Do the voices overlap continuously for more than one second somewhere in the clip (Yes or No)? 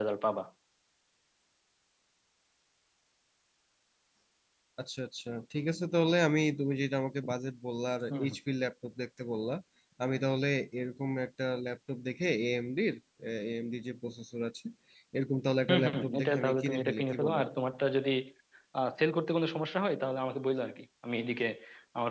Yes